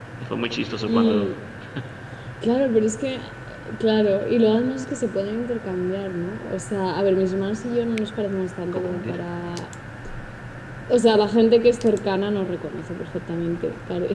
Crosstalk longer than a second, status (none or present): none